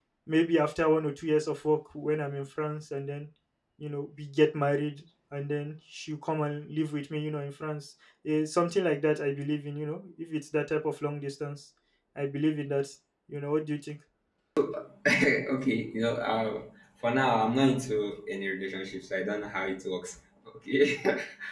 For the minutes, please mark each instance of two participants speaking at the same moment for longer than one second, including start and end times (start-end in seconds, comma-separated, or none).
none